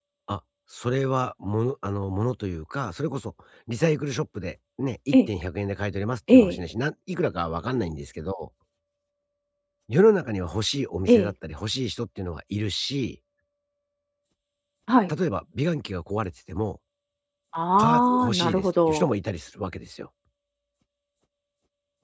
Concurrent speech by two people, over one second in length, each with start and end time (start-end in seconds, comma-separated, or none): 17.8-19.1